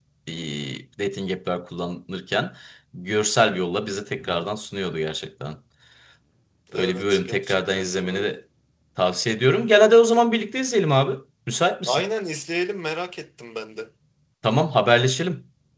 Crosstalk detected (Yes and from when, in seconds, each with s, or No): Yes, from 6.7 s